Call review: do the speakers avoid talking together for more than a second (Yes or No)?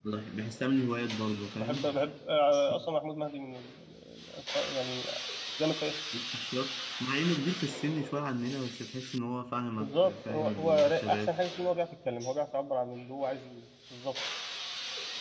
No